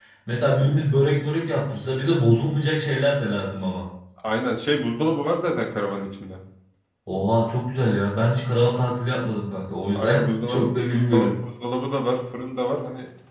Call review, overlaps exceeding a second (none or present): present